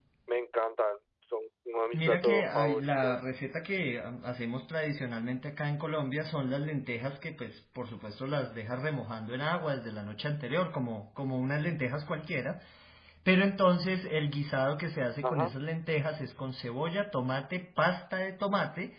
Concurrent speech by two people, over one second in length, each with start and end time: 1.9-3.2

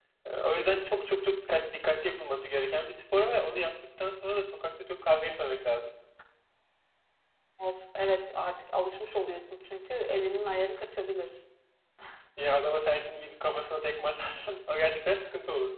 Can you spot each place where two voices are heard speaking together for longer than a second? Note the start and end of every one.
none

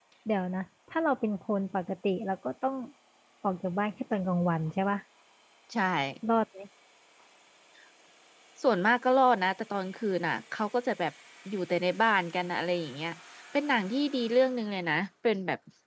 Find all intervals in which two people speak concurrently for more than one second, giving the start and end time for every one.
none

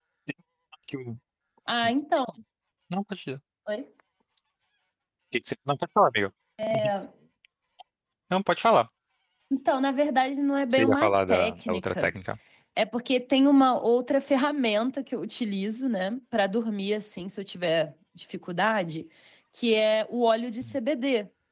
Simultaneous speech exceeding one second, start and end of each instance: 10.7-12.1

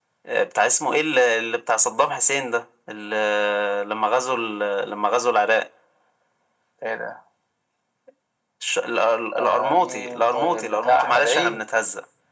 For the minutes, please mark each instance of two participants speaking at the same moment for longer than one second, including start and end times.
9.3-11.6

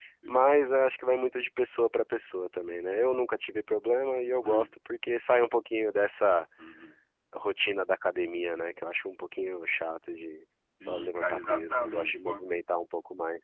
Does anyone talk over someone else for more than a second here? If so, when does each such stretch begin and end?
10.9-12.4

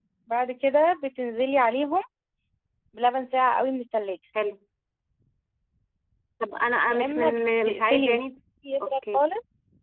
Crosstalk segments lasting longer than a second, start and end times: 6.9-8.2

